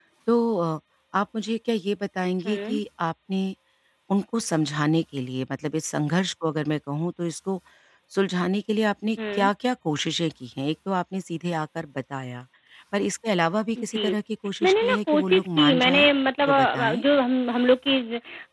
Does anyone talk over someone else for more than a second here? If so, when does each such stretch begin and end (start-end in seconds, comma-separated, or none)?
14.6-16.1